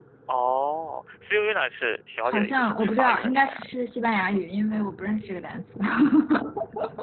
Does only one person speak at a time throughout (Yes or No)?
No